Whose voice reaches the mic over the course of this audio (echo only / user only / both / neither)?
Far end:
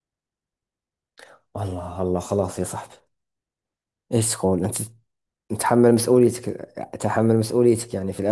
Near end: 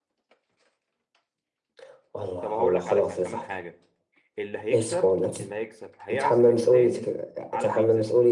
both